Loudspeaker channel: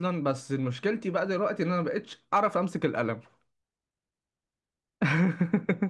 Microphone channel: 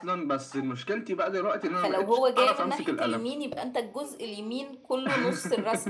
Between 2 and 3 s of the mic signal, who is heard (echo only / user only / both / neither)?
both